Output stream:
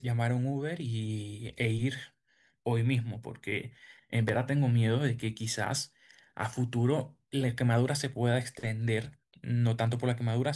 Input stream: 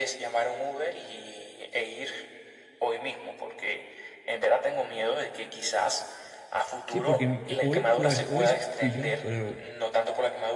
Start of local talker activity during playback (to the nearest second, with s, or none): 7 s